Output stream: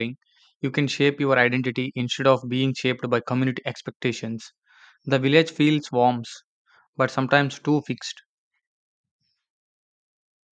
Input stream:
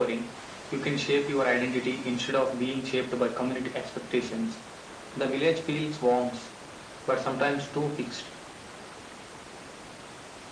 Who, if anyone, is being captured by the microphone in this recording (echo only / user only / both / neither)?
echo only